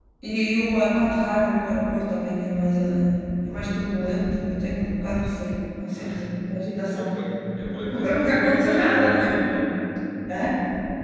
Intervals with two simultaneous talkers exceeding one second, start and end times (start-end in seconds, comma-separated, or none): 7.9-9.4